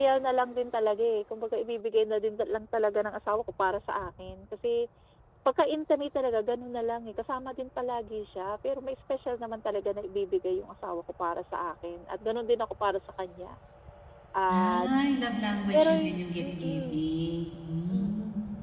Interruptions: present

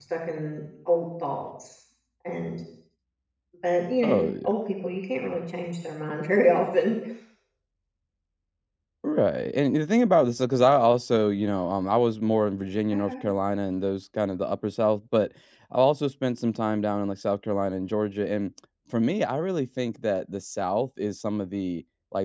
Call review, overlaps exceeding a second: none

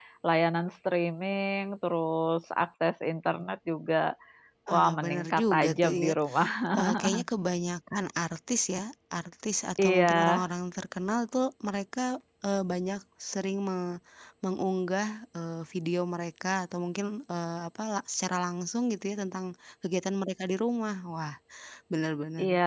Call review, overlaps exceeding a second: present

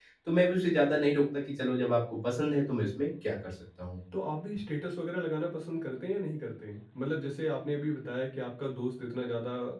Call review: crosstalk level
none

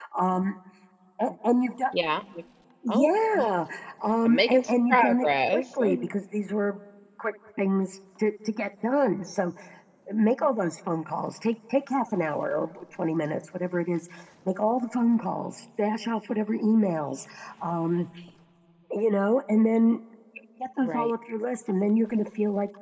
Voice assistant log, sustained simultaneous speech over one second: present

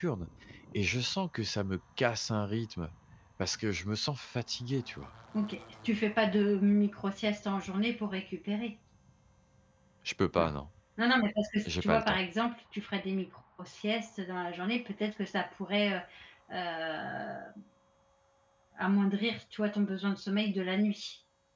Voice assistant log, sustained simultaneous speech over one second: none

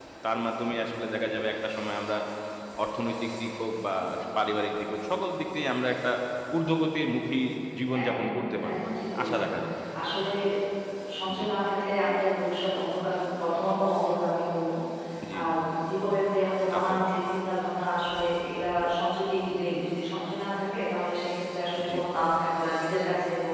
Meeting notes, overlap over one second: present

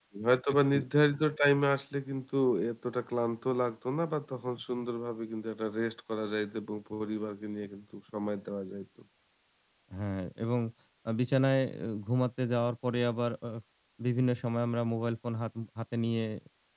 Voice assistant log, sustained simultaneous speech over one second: none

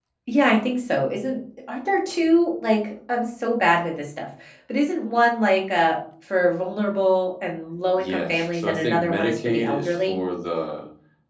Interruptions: present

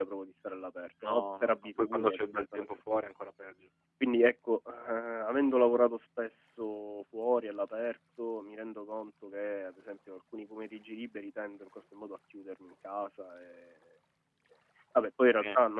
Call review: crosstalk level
present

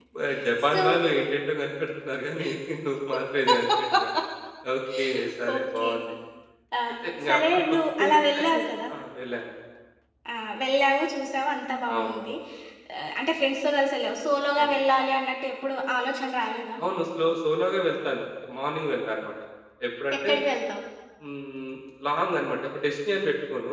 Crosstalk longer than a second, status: present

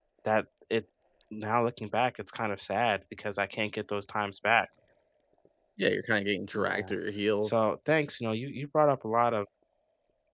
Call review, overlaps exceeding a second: none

